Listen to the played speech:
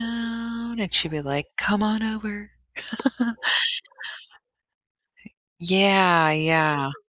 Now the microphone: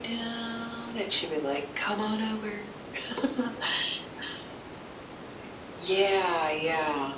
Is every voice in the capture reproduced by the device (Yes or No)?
Yes